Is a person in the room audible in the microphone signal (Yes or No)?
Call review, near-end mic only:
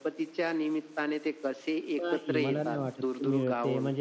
Yes